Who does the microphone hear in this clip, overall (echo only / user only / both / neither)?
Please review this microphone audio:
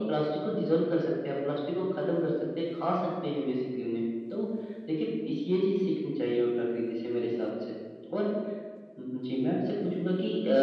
echo only